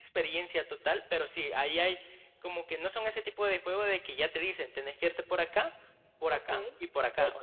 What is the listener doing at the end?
taking over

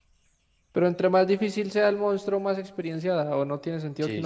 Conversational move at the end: taking over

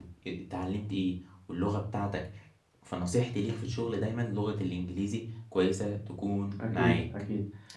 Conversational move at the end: taking over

